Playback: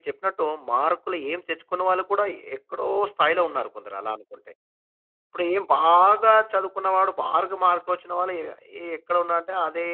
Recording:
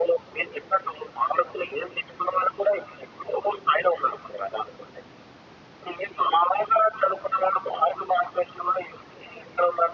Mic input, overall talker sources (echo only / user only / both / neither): echo only